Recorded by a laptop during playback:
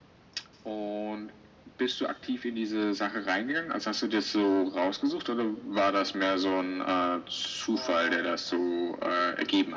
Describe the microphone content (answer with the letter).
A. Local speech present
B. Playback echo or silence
A